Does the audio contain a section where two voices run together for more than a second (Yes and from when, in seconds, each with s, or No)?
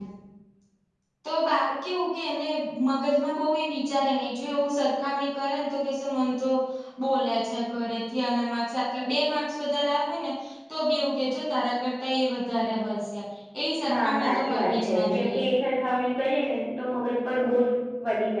Yes, from 13.9 s